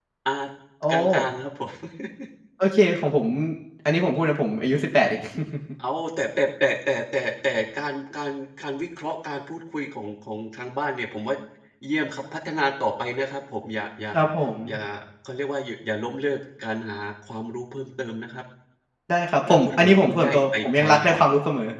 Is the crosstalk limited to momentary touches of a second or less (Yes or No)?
No